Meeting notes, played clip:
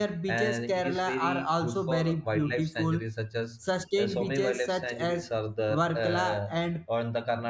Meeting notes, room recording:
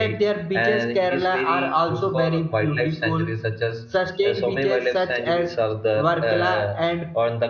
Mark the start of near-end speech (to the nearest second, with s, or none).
none